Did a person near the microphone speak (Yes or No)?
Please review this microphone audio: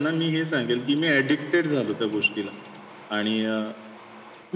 No